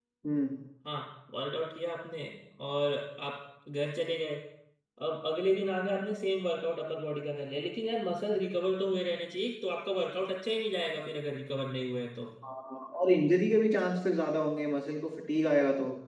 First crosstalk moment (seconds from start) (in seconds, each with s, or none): none